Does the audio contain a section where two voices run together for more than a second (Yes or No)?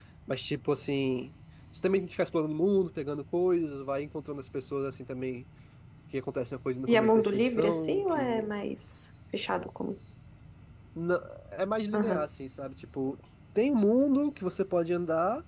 Yes